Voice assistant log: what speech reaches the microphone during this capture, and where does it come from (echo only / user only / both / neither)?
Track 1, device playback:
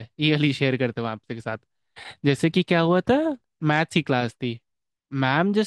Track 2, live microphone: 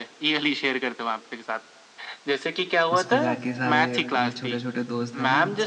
both